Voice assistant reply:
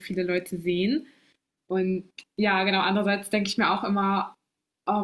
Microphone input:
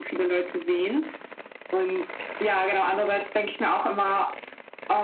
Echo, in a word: present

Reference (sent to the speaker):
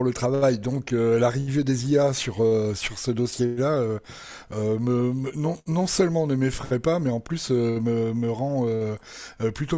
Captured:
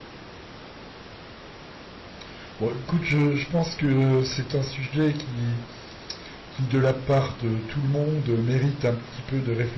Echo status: none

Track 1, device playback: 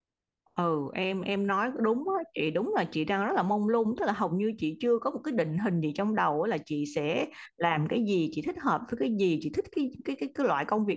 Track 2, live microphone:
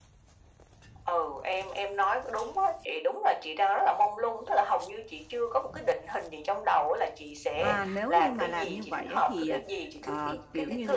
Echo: present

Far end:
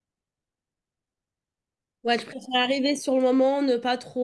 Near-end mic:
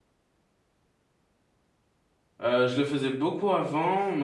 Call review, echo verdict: none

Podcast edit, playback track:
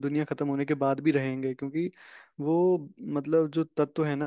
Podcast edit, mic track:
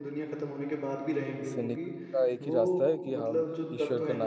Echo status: present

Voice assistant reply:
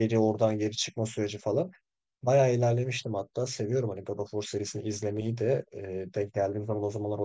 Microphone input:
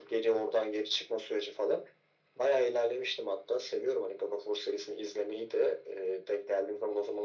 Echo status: present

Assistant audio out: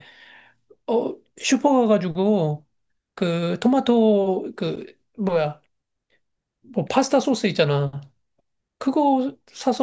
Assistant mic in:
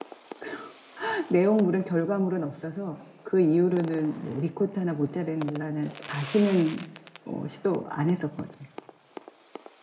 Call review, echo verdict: none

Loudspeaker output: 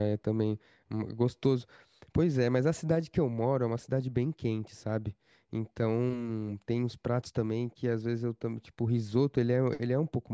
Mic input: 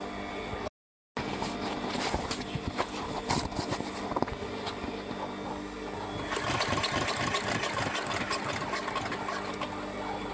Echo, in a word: none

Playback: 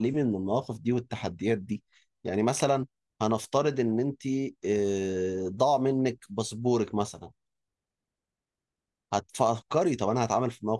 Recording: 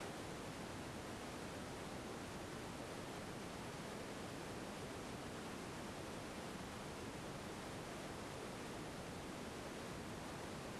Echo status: none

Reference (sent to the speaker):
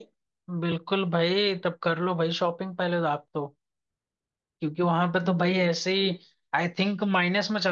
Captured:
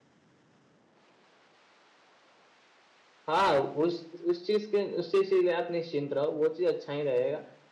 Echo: none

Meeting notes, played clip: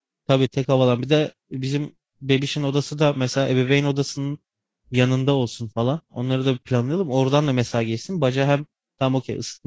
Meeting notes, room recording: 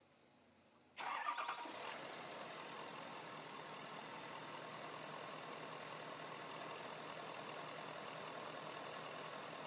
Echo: none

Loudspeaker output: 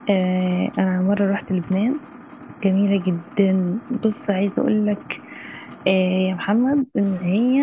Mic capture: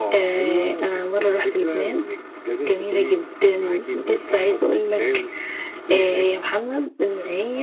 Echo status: present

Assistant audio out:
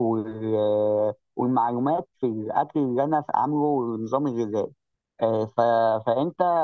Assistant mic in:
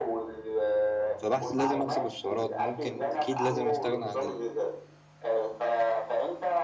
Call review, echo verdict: present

